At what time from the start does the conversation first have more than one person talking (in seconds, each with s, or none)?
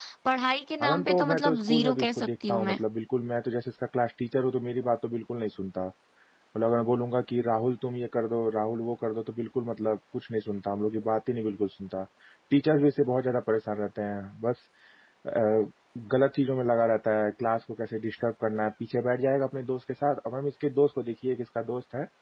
0.8 s